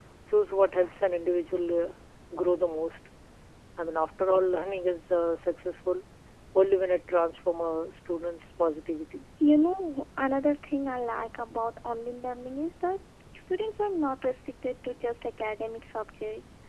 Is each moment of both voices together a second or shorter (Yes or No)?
Yes